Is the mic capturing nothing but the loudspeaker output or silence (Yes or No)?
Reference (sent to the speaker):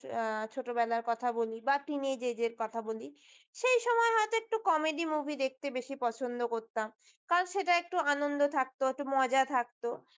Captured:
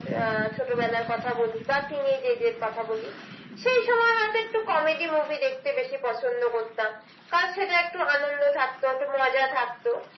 Yes